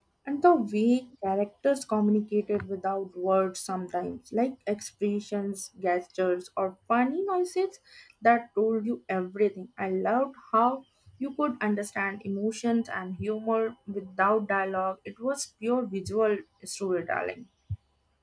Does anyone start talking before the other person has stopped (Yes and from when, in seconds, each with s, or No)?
No